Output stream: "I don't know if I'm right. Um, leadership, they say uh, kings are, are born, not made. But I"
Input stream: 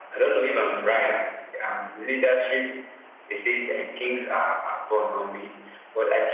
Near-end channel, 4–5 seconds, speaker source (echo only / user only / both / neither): echo only